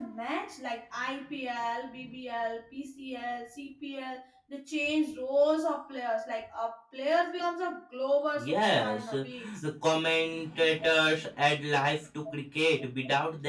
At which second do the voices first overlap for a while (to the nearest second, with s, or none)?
8 s